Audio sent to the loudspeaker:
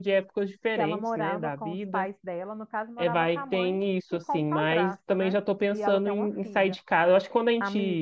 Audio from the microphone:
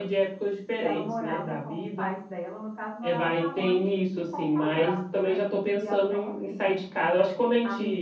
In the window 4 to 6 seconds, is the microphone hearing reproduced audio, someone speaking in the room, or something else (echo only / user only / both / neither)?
echo only